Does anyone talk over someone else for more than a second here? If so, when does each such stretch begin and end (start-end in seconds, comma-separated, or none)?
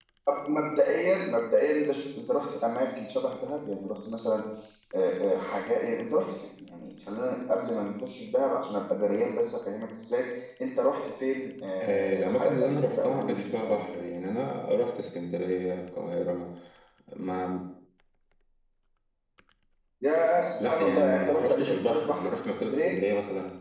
11.8-13.9, 20.6-23.0